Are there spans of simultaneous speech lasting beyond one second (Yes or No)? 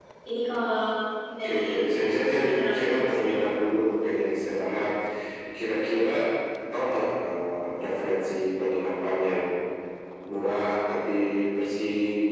Yes